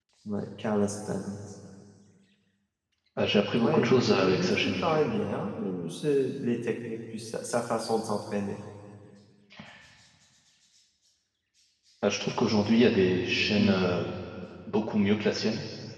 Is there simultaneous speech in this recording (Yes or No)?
Yes